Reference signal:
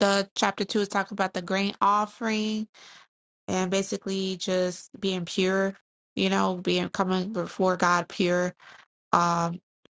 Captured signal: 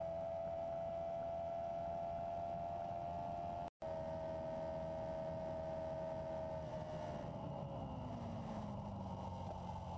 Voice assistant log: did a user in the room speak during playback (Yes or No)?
No